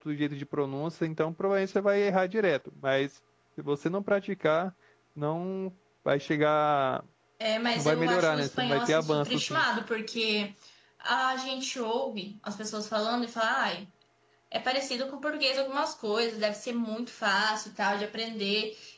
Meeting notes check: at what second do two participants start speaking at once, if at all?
7.8 s

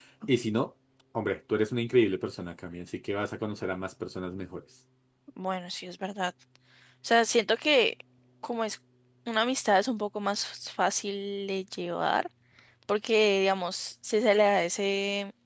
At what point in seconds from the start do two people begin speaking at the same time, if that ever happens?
none

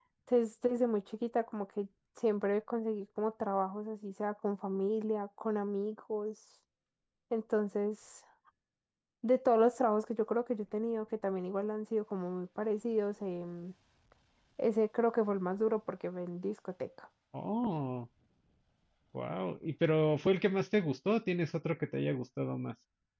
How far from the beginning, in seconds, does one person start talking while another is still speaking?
none

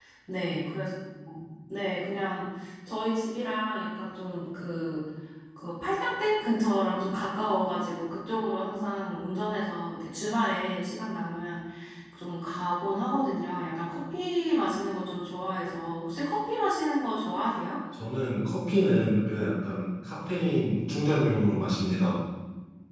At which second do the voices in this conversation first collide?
none

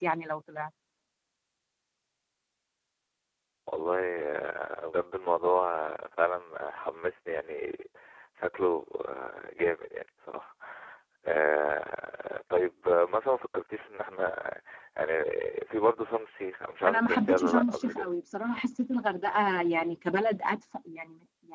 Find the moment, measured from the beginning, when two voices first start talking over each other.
16.8 s

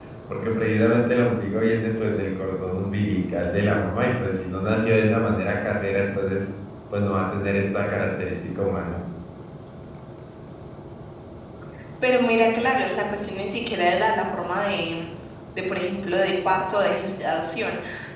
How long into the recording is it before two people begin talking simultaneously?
none

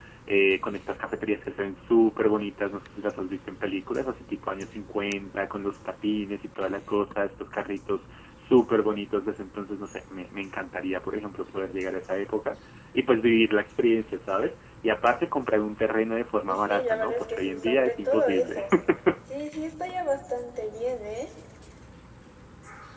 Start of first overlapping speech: 16.5 s

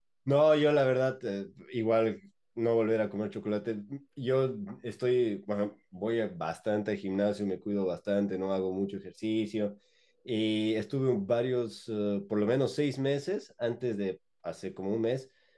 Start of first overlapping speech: none

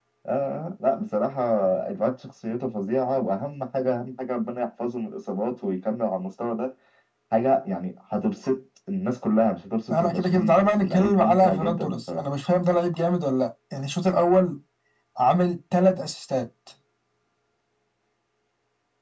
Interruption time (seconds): 9.9 s

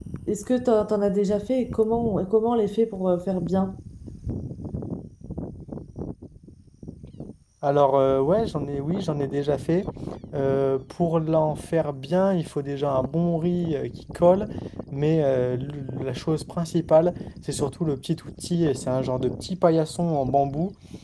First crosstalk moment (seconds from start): none

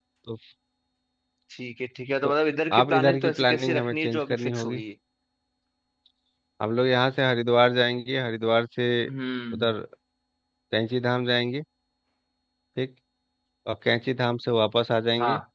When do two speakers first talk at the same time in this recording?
2.8 s

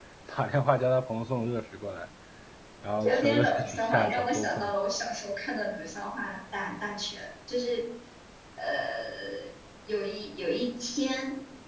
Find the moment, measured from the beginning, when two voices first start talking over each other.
3.1 s

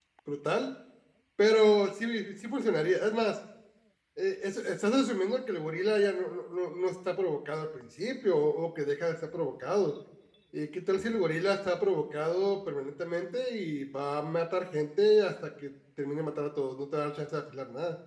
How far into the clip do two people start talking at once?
none

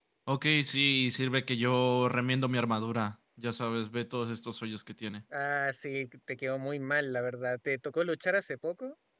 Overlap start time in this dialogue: none

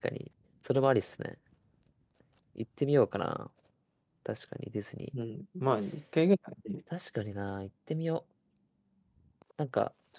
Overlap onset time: none

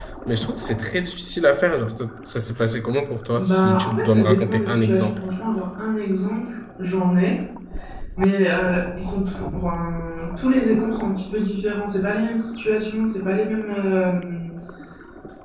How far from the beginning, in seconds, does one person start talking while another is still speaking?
3.4 s

